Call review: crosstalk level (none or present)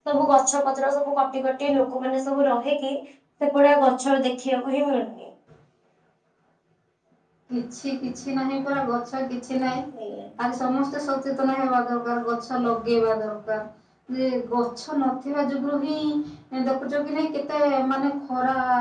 none